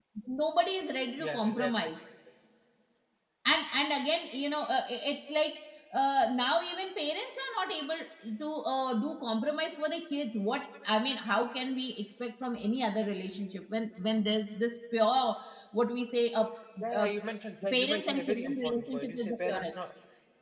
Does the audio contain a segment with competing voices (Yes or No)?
Yes